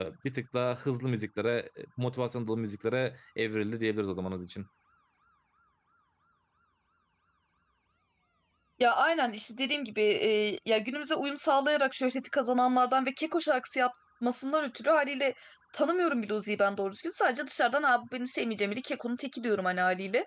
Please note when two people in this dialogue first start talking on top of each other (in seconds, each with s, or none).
none